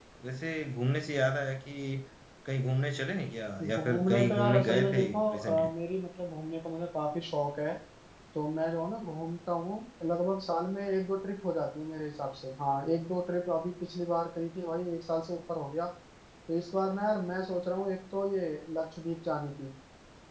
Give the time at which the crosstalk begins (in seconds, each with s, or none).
3.6 s